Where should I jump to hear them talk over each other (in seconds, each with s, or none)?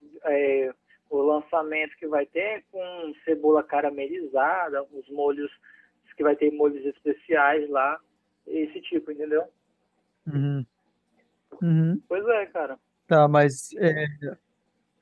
none